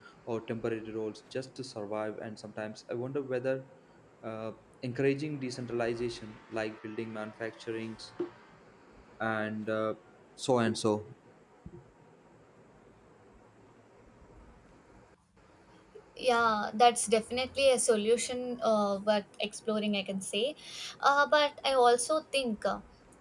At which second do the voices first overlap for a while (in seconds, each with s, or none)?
none